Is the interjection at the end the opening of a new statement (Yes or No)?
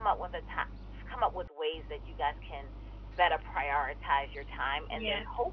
No